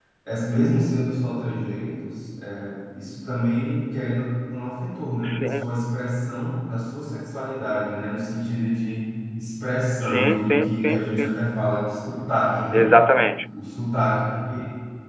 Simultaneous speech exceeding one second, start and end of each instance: 10.0-11.4

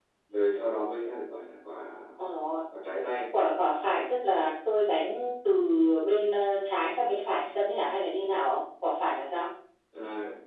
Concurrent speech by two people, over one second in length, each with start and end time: none

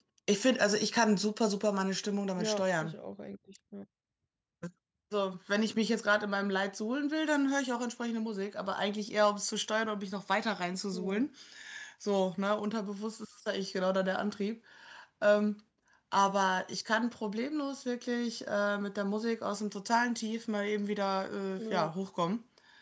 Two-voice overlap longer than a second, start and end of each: none

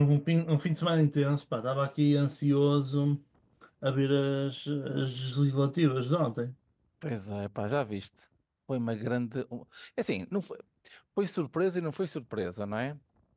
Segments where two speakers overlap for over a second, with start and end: none

